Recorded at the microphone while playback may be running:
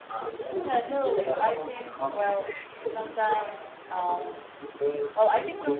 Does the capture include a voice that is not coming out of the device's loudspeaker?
Yes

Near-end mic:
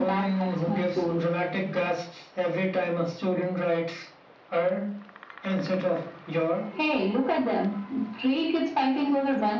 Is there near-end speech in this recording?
No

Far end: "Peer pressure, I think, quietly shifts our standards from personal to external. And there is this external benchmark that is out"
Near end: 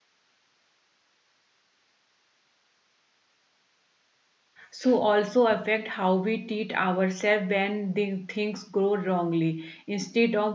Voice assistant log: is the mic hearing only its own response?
No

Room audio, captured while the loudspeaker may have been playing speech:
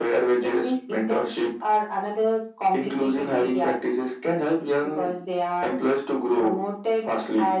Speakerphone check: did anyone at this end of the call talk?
No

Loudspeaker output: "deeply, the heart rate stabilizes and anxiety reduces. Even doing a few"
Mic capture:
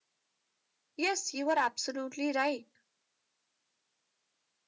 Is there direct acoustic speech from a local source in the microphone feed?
Yes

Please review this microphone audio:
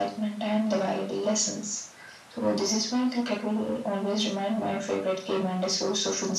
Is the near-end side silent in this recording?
Yes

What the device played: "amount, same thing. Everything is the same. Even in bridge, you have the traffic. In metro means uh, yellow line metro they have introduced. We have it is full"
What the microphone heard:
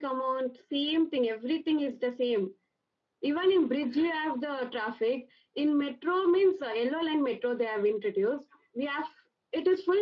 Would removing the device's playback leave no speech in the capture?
Yes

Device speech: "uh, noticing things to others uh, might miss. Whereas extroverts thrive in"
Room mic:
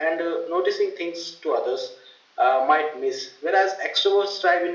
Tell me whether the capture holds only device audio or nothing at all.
Yes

